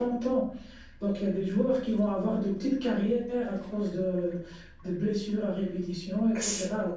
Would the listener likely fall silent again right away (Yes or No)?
Yes